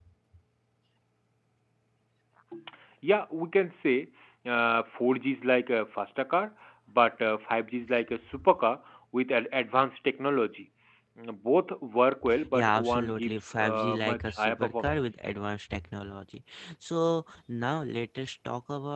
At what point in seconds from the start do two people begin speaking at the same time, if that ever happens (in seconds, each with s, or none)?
12.5 s